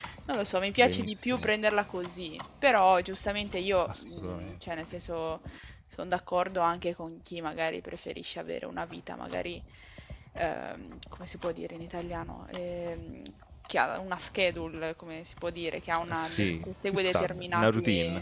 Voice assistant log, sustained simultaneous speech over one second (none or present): present